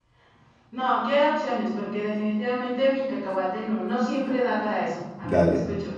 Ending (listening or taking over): taking over